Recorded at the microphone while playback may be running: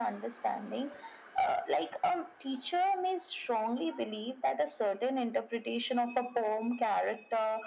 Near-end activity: none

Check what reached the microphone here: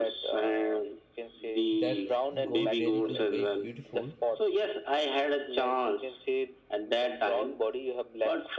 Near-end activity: present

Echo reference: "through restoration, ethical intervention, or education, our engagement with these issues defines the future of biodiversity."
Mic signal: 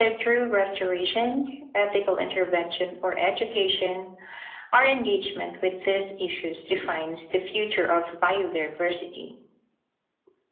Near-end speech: none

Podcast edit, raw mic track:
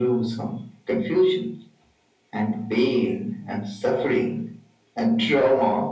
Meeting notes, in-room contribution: none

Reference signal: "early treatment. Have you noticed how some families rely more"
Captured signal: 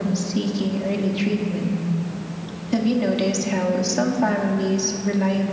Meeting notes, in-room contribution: none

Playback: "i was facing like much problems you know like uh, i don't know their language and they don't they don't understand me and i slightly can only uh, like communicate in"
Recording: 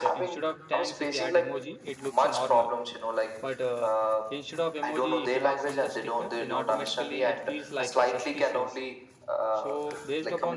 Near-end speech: present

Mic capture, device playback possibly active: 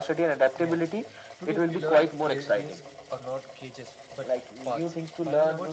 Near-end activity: present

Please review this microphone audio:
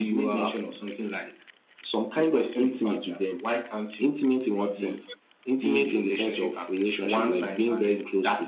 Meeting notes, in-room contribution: present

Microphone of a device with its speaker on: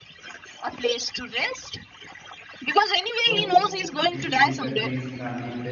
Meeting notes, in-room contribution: present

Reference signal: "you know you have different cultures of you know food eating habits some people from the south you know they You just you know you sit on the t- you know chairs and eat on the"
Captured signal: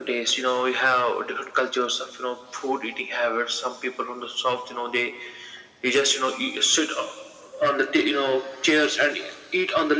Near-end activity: none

